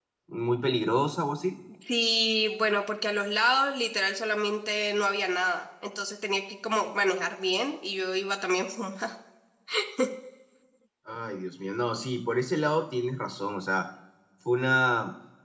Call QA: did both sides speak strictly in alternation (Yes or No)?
Yes